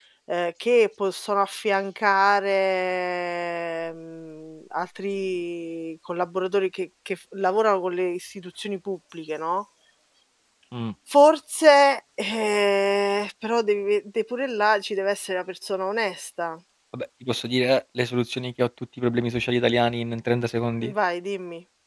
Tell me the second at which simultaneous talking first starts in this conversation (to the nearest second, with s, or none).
none